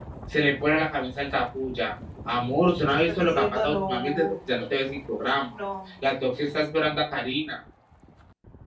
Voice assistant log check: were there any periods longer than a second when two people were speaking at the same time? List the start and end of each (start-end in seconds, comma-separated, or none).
3.1-4.3